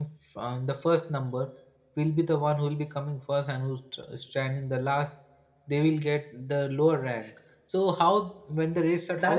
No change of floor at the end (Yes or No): No